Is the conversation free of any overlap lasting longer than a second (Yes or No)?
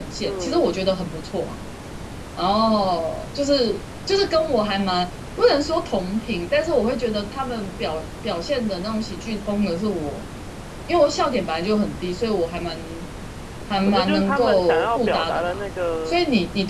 No